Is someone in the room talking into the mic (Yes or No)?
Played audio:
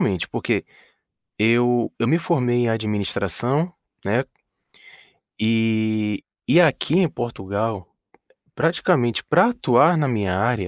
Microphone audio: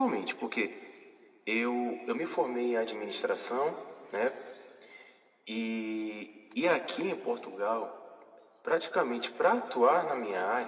No